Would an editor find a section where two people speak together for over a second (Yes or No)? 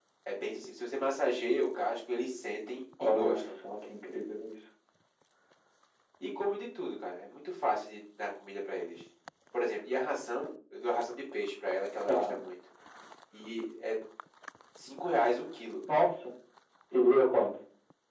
No